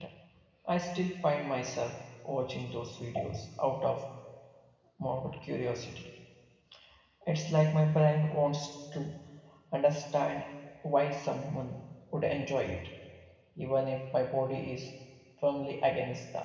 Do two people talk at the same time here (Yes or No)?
No